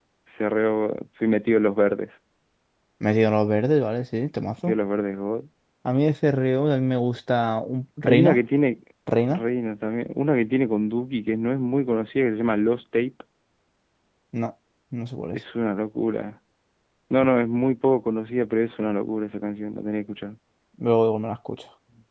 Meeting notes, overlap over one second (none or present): none